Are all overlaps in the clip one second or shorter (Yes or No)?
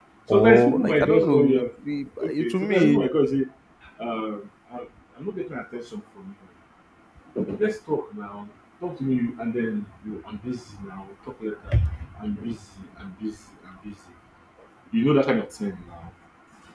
No